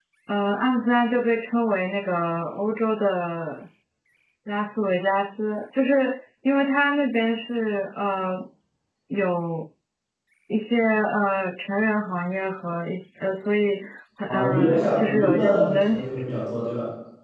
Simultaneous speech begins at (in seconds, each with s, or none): 14.3 s